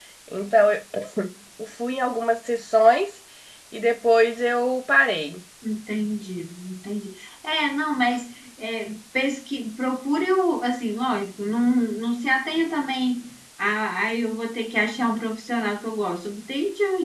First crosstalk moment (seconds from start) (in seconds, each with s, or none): none